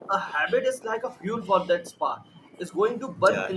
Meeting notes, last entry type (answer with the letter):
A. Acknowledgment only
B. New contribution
A